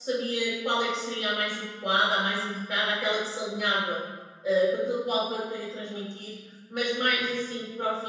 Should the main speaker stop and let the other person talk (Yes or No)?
No